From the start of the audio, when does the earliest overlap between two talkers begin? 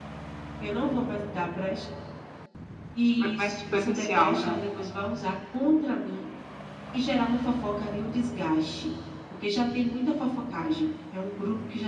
3.2 s

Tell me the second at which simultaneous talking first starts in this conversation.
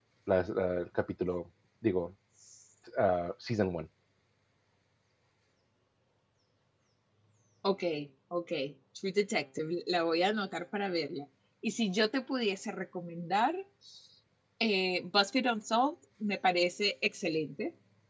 none

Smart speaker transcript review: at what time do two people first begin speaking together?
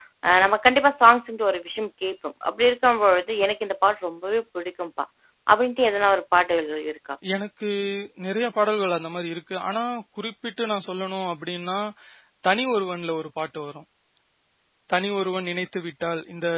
none

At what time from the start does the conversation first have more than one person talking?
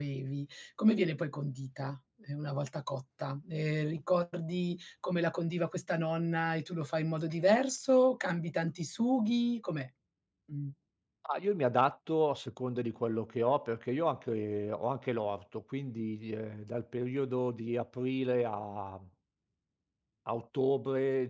none

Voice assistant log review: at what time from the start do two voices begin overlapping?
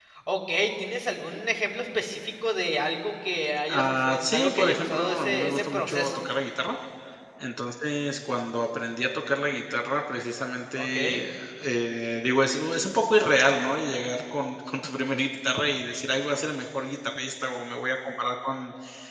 3.7 s

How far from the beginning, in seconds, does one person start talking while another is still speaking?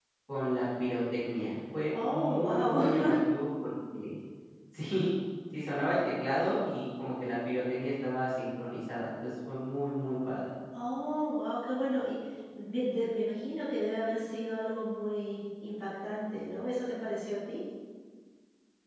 1.9 s

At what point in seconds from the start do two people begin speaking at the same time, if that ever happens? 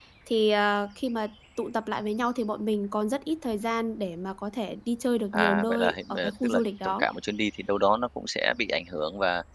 5.3 s

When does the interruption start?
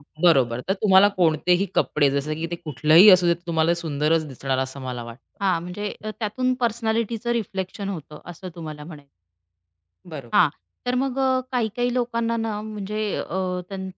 none

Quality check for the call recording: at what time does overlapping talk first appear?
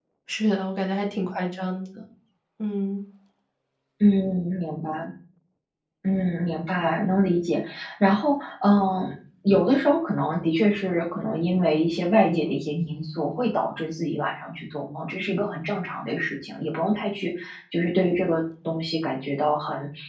none

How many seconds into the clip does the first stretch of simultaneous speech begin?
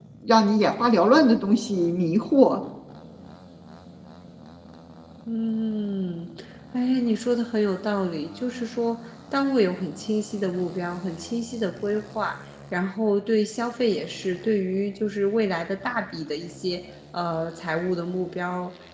none

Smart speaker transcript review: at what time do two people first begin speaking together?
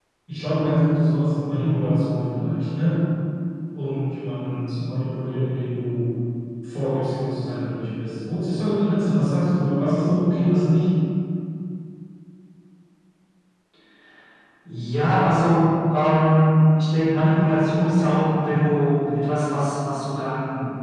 none

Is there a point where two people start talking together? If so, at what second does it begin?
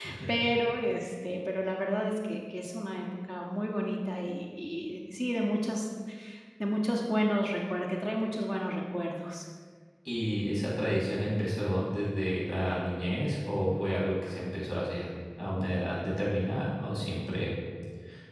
none

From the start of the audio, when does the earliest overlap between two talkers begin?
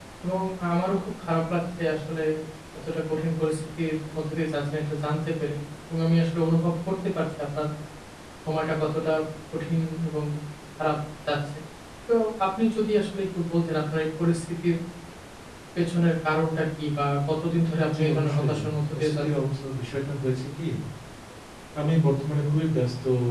17.9 s

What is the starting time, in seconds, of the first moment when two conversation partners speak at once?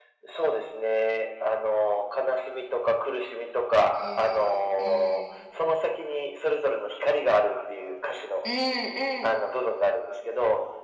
3.9 s

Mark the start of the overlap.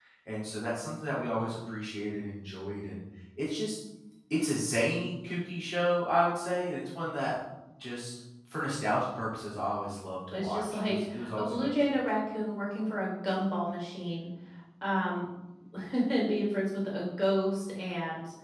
10.3 s

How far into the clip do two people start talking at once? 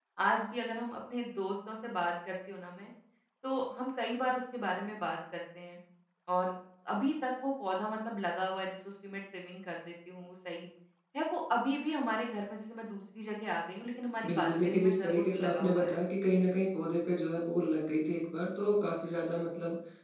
14.2 s

